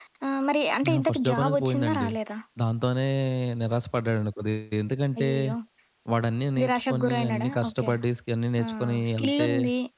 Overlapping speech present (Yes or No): Yes